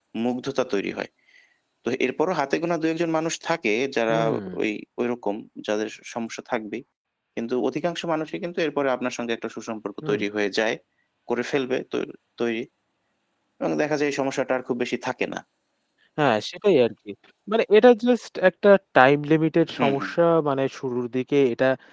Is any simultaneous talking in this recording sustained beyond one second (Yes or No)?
No